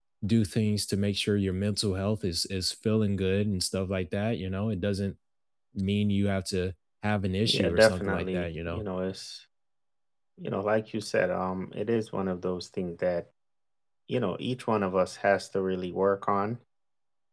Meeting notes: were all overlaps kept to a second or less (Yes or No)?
No